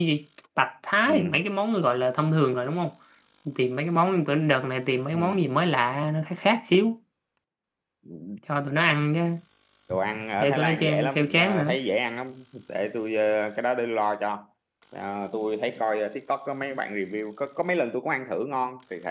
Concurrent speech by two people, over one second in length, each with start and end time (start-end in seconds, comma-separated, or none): 10.4-11.8